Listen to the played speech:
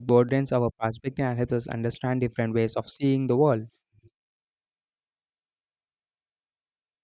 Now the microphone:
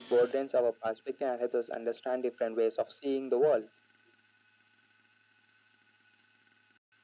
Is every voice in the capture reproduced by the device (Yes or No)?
Yes